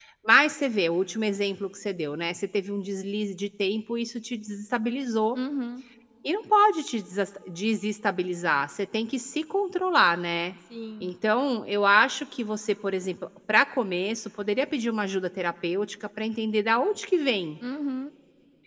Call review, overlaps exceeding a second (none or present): none